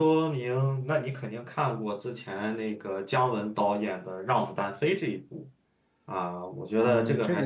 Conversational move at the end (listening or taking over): taking over